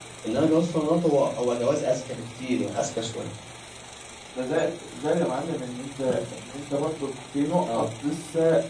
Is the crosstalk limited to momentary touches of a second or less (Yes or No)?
Yes